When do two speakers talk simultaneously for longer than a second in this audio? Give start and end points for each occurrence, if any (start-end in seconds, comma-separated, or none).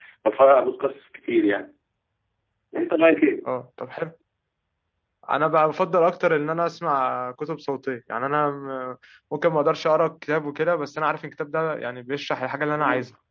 none